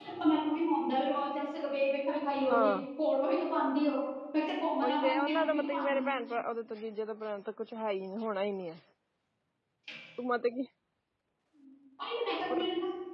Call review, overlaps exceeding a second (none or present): present